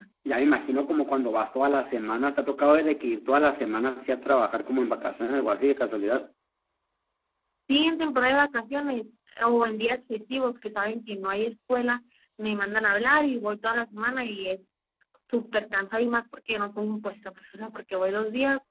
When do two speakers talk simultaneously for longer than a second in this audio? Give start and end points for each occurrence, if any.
none

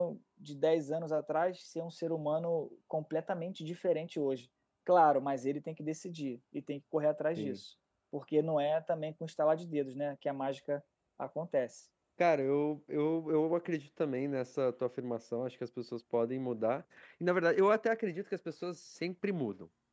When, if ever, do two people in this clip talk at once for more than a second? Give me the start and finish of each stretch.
none

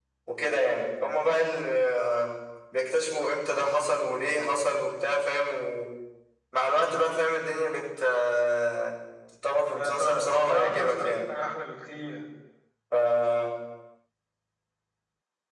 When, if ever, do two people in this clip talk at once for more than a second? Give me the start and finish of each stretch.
9.8-11.2

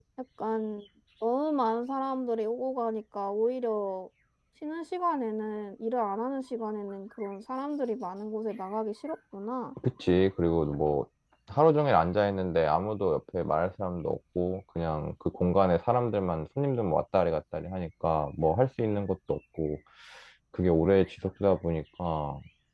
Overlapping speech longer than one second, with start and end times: none

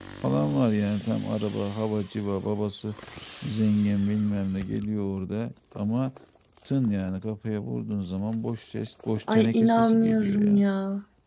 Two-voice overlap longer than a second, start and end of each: 9.3-10.6

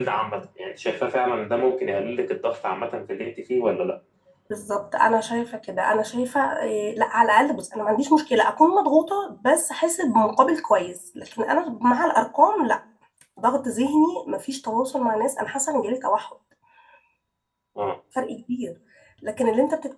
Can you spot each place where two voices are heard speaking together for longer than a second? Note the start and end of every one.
none

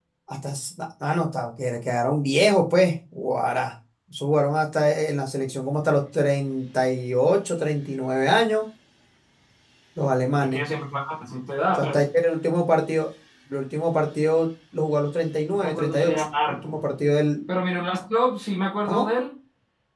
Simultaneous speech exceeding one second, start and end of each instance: 15.5-16.9

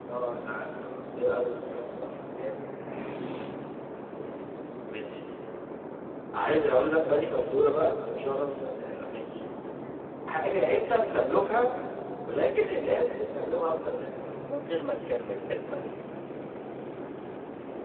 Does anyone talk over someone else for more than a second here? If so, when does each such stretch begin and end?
none

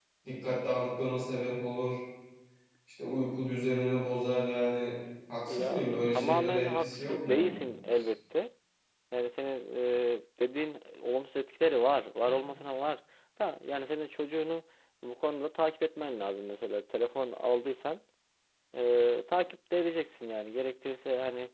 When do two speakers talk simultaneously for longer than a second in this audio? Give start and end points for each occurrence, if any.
5.5-7.6

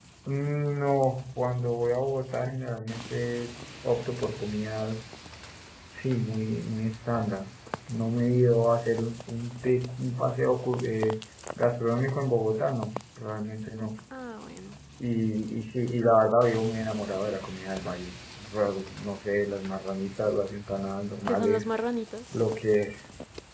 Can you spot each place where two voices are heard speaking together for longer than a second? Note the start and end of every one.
none

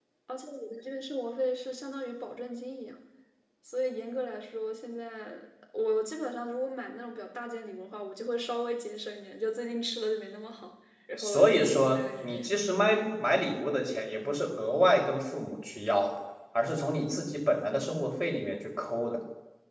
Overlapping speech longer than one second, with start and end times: none

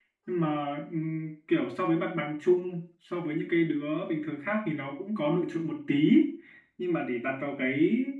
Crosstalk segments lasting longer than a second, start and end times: none

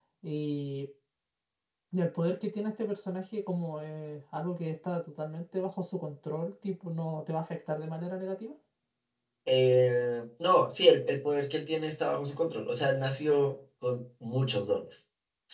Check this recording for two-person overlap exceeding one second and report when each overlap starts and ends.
none

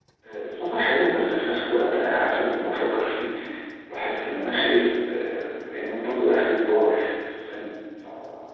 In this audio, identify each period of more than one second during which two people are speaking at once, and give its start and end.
none

